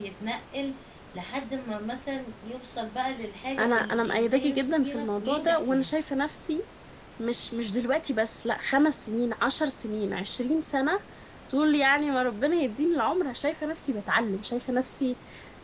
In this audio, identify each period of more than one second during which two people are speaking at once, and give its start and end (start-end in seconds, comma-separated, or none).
3.6-5.9